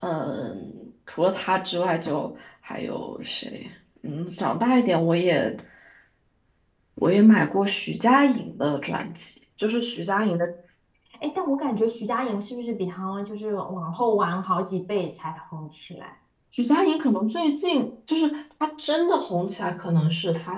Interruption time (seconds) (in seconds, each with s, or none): none